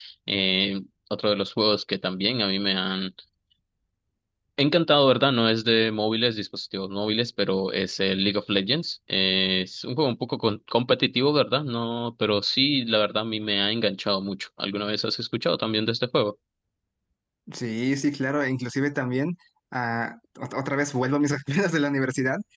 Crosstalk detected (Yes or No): No